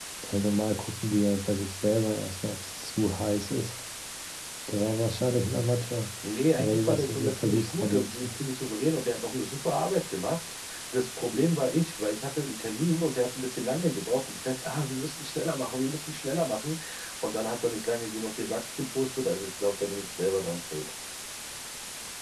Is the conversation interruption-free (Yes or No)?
No